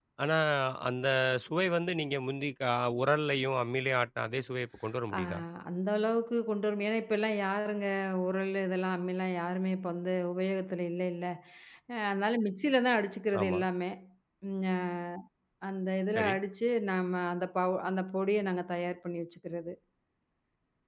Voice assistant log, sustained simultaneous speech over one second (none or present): none